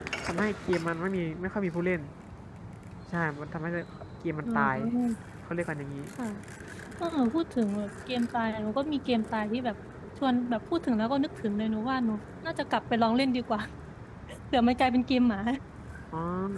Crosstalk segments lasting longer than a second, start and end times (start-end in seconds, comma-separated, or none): none